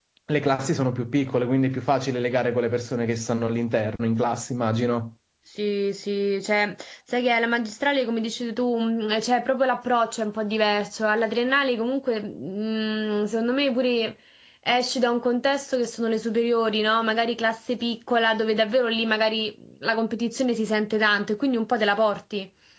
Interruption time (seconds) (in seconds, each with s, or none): none